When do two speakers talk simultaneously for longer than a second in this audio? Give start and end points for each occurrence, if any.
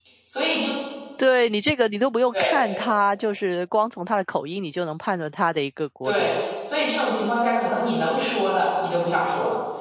none

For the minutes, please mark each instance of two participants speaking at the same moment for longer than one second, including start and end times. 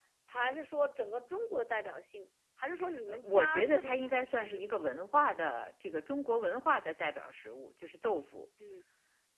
3.1-4.6

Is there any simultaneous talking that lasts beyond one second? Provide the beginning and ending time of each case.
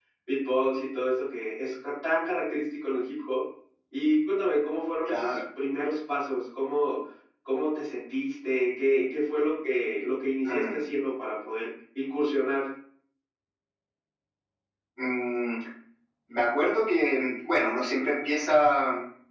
none

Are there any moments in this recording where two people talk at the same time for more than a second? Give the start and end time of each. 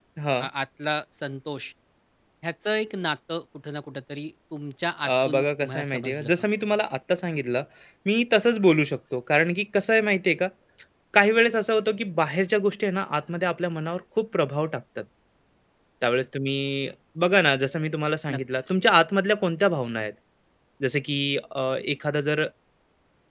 5.0-6.3

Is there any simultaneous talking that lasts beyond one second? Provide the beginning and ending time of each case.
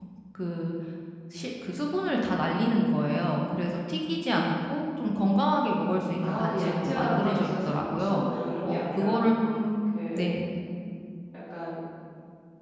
6.2-8.2

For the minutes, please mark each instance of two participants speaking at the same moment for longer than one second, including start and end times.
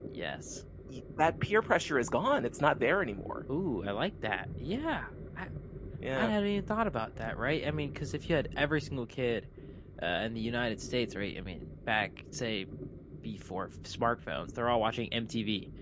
none

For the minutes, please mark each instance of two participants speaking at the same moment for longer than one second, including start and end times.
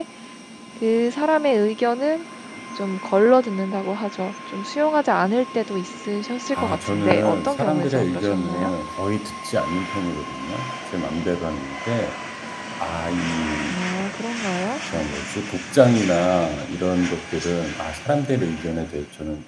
6.5-8.7

